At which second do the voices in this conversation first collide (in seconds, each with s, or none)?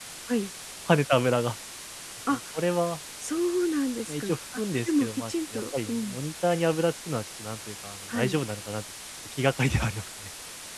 4.1 s